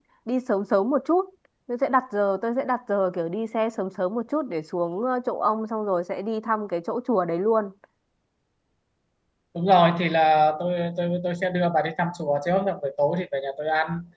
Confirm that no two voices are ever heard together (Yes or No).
Yes